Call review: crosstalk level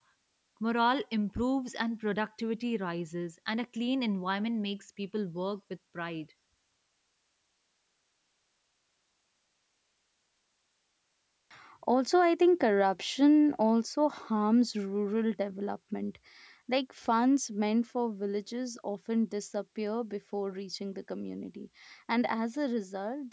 none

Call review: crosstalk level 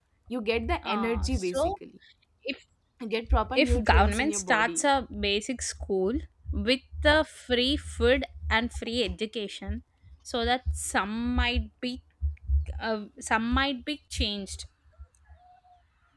present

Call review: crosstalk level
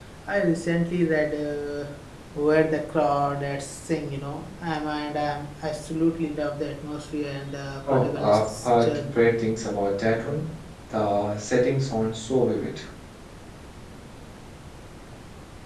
present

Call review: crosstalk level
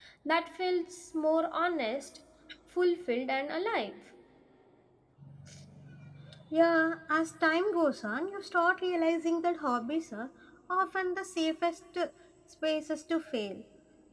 none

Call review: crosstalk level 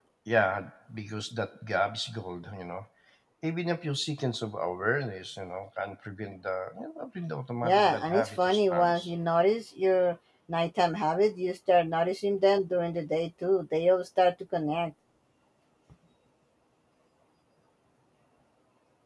present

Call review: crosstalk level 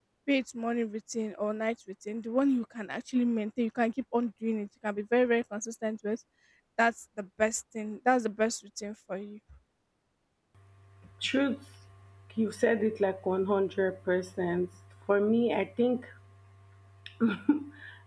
none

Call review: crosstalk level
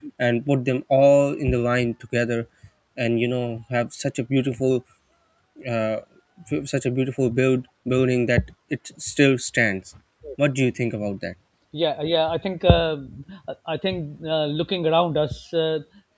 none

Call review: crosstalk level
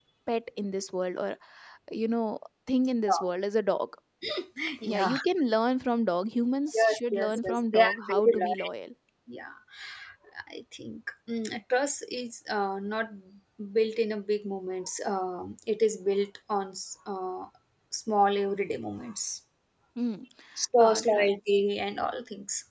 present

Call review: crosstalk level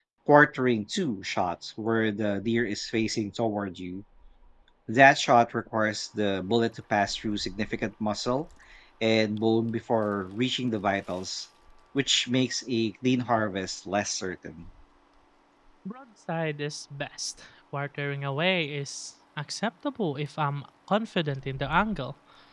none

